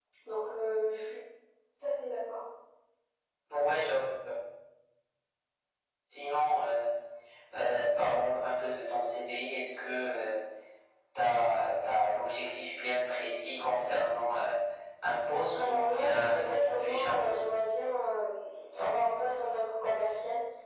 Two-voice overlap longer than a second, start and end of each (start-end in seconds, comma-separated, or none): 15.5-17.4